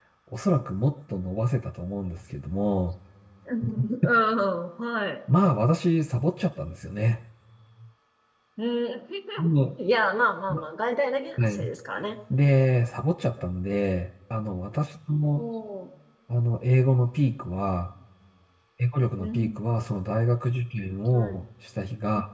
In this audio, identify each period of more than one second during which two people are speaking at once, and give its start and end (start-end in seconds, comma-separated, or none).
none